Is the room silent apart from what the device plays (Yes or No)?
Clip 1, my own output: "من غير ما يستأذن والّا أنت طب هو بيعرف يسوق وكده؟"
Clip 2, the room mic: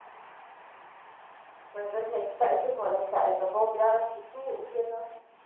Yes